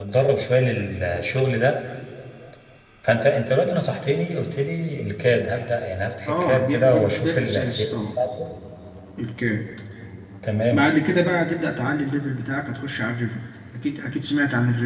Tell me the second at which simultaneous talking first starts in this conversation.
6 s

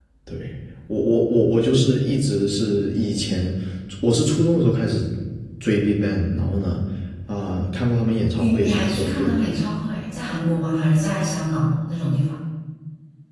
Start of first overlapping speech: 8 s

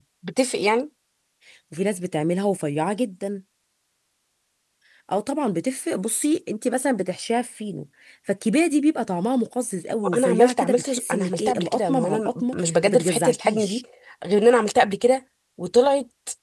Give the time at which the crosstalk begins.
10 s

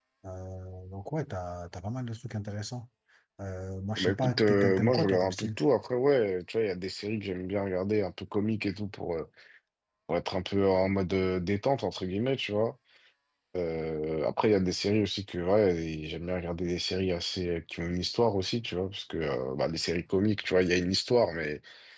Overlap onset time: 4 s

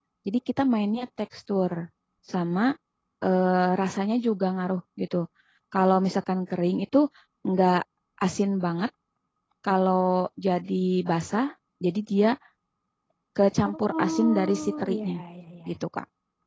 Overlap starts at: 14 s

